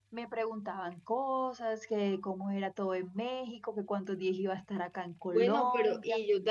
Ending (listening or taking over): taking over